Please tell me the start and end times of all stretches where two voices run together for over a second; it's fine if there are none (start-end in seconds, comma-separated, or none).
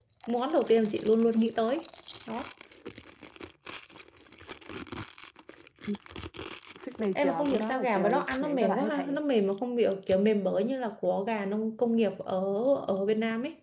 7.2-9.2